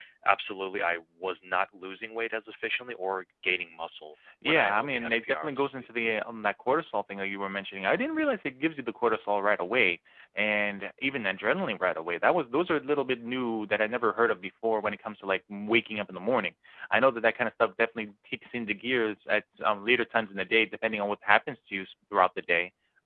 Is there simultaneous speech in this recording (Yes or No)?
Yes